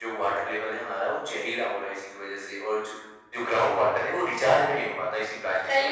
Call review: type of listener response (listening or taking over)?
taking over